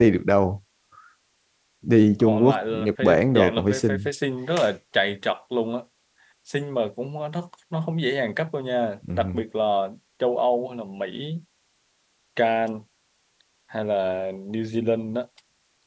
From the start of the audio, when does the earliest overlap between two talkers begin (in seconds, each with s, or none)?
2.2 s